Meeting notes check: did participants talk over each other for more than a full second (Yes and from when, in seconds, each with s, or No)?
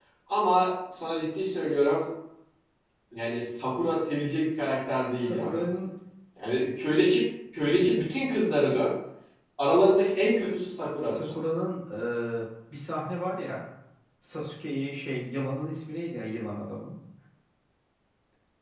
No